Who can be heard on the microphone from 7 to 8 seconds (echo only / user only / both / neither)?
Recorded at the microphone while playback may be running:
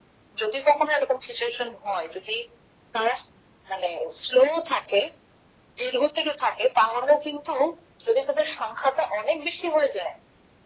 echo only